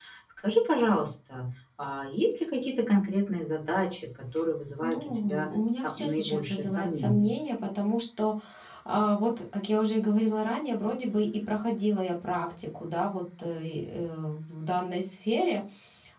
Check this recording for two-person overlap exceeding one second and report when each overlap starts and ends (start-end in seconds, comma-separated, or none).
4.8-7.3